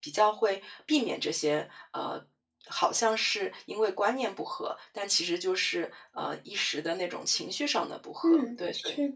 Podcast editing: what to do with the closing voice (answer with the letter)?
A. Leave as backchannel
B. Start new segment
B